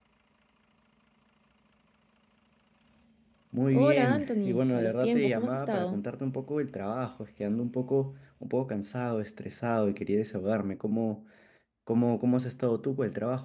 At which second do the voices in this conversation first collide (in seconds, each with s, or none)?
3.7 s